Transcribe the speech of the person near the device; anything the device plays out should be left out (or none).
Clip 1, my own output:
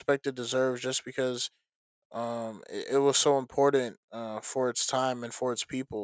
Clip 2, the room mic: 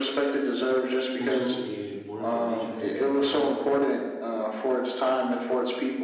Also, uh, more information to give about uh,